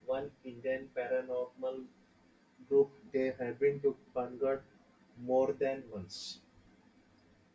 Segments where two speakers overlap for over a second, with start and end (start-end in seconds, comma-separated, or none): none